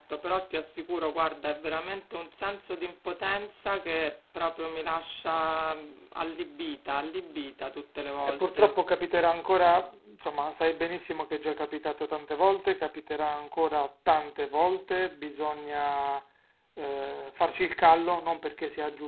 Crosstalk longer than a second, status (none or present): none